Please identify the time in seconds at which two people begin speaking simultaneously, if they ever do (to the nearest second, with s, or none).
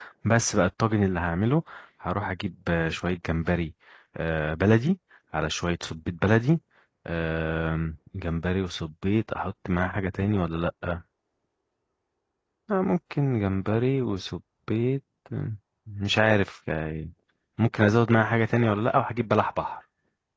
none